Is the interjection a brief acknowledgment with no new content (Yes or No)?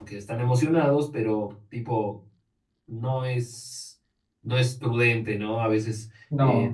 Yes